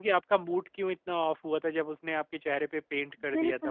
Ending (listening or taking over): taking over